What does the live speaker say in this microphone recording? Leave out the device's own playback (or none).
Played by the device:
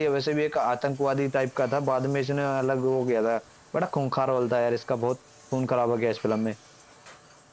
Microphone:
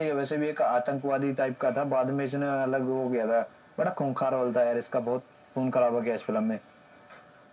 none